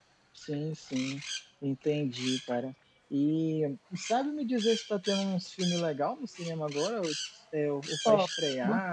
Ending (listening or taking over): taking over